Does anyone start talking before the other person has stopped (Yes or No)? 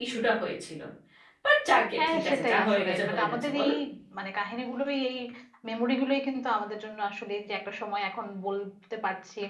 Yes